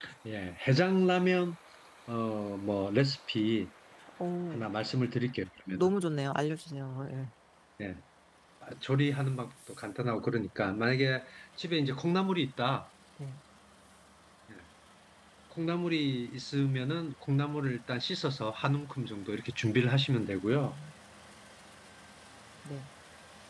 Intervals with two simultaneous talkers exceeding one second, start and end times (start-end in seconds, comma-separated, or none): none